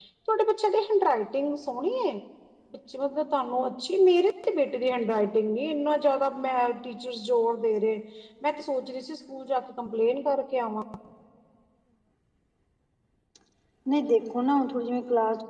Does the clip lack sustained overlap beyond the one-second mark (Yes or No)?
Yes